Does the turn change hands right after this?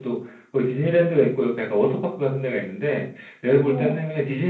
No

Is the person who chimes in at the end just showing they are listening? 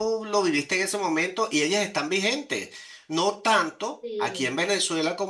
Yes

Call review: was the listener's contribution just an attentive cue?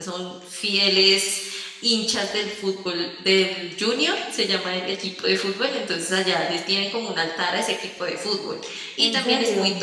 Yes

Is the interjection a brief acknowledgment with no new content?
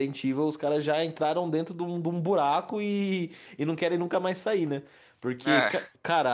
Yes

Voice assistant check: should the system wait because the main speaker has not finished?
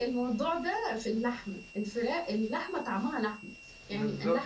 Yes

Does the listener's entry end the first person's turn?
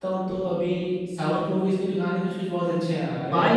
Yes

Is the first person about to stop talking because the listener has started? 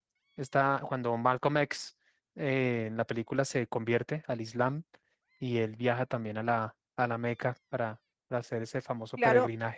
Yes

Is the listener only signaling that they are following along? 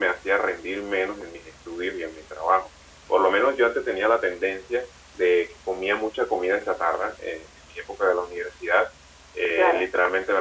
Yes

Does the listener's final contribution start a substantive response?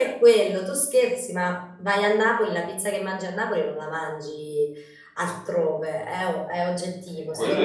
No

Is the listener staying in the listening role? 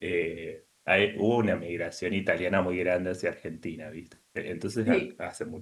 Yes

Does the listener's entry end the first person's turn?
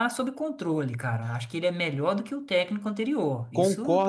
Yes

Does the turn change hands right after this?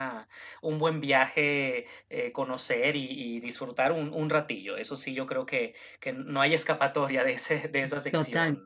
Yes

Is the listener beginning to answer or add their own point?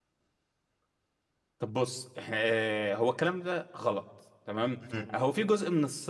No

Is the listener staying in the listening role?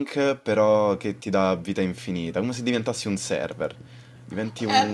No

